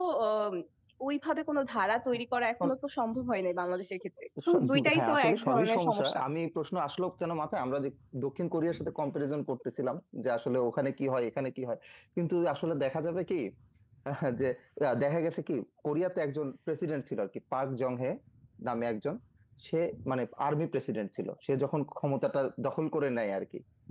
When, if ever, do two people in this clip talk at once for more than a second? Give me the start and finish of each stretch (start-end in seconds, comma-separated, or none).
4.5-6.2